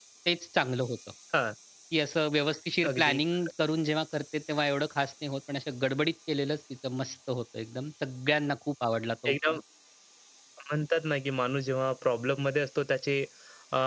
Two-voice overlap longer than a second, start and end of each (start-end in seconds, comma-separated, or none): none